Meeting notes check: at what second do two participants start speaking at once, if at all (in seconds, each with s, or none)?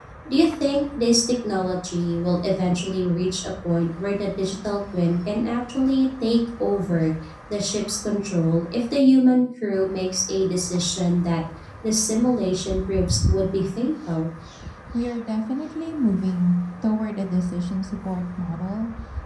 none